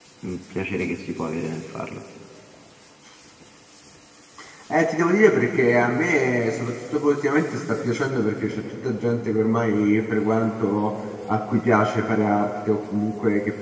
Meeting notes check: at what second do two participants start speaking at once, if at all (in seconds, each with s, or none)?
none